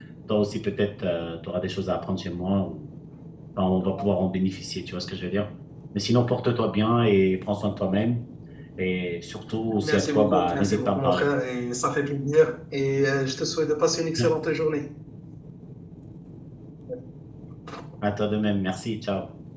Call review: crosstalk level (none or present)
present